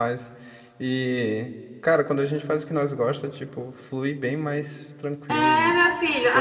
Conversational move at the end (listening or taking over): taking over